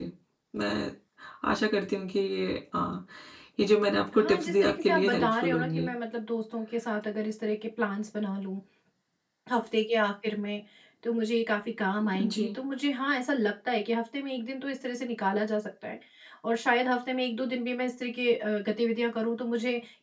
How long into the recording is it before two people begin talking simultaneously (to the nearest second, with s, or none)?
4 s